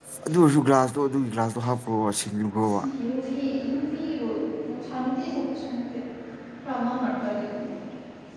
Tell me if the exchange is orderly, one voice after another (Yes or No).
Yes